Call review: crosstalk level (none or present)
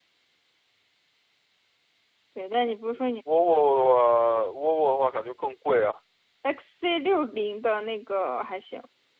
none